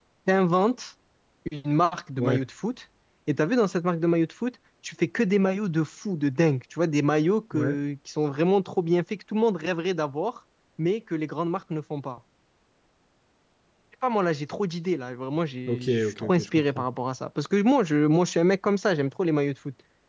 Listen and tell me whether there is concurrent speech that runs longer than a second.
Yes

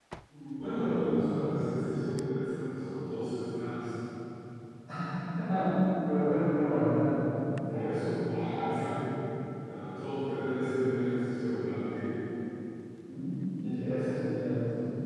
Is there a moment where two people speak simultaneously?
Yes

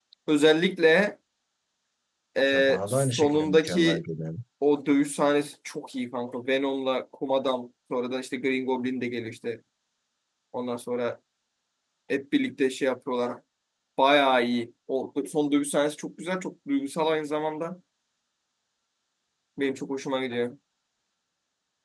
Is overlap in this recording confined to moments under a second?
No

